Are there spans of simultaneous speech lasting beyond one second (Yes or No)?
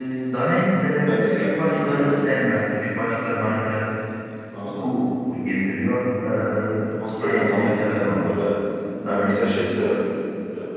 Yes